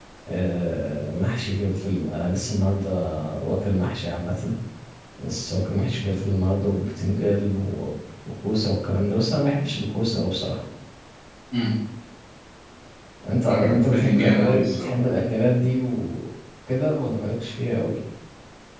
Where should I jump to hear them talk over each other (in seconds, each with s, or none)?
13.4 s